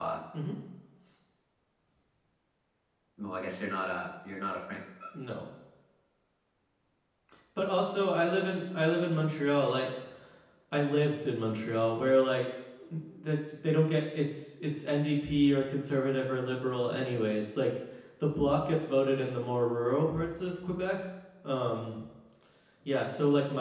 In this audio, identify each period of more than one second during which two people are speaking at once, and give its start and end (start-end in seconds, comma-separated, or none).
none